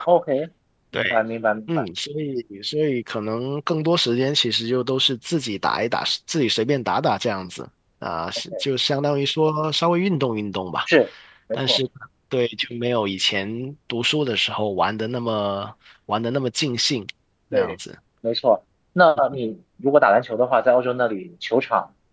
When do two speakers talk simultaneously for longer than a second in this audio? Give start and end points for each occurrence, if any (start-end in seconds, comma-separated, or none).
none